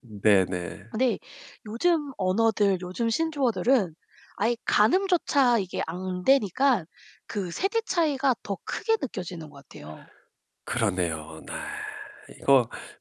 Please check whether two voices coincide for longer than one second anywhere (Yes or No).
No